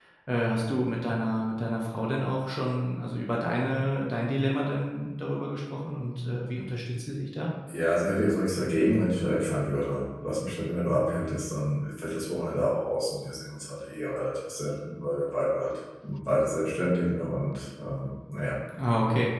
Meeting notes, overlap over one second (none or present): none